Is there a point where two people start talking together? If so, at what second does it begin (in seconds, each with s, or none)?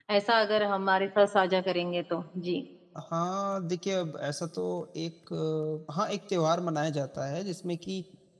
none